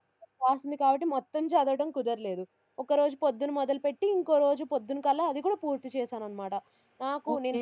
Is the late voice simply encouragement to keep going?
Yes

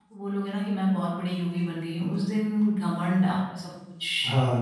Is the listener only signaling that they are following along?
No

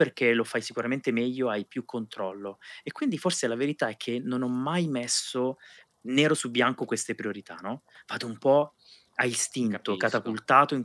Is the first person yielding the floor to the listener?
No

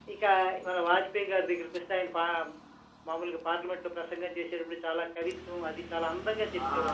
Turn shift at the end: Yes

